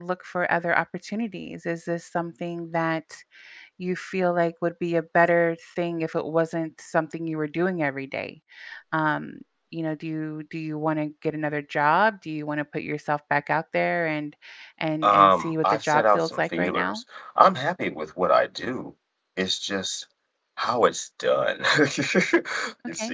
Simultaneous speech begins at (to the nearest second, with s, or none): 15 s